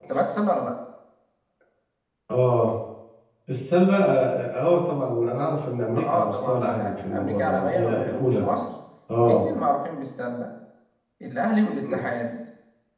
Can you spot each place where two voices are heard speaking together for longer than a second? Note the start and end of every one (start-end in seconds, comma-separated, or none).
5.9-8.5